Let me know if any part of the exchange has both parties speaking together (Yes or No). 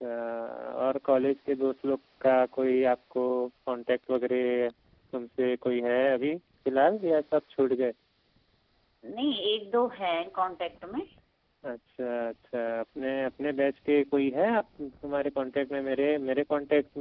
No